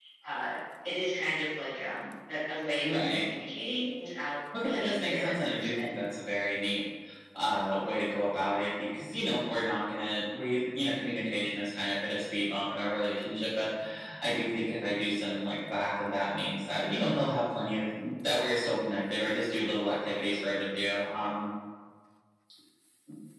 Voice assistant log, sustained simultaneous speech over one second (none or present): present